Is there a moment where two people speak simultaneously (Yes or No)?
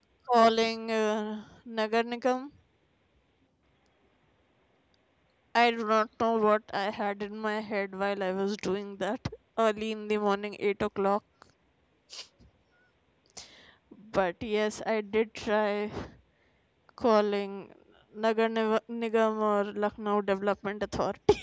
No